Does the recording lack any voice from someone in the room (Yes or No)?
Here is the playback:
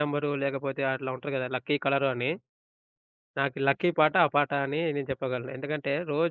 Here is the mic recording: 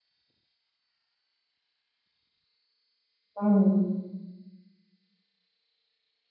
No